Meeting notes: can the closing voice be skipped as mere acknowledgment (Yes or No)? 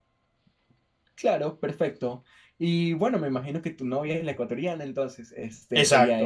Yes